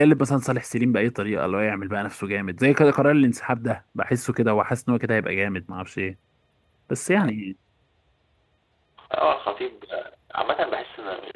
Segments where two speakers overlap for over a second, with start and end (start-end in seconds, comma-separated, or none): none